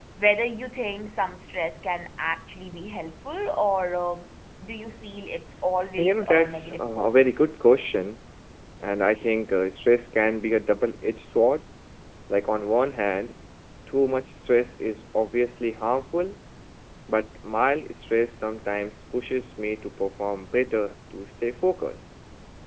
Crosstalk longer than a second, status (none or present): present